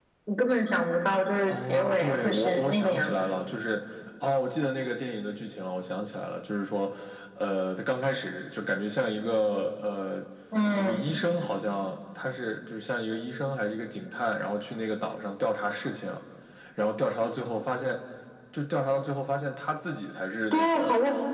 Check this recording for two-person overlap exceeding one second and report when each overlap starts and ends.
1.4-3.2

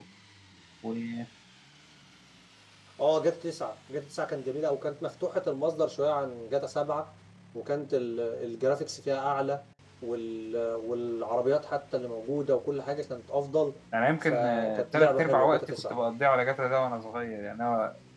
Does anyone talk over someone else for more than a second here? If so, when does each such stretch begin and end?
14.2-15.9

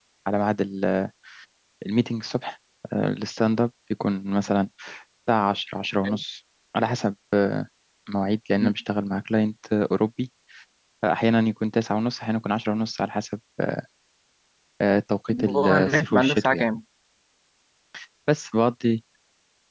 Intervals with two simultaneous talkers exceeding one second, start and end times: 15.3-16.7

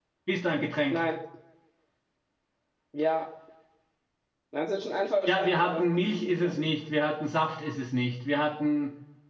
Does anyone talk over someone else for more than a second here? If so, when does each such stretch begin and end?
5.3-6.5

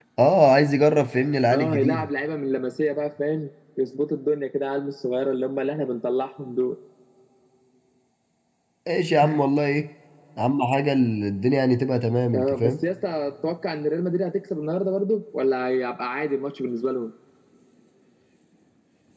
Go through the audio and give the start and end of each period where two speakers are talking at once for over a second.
none

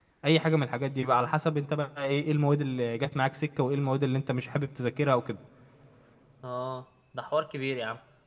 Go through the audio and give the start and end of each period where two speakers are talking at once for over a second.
none

